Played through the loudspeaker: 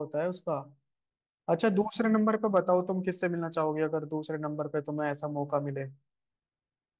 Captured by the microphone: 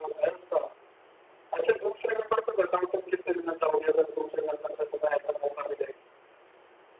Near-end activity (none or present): none